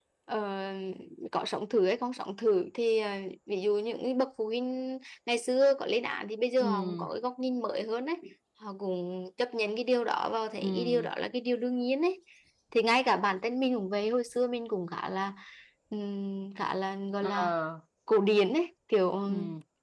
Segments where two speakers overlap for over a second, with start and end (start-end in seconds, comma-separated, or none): none